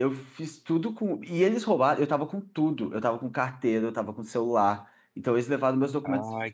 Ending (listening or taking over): taking over